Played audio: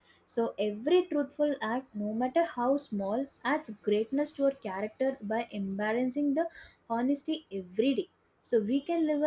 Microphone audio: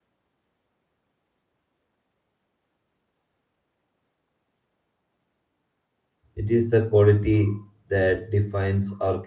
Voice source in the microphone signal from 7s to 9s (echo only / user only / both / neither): user only